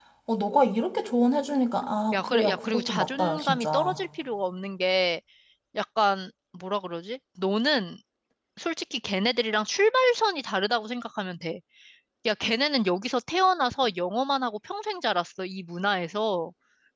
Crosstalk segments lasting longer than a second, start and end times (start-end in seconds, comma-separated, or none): 2.1-4.0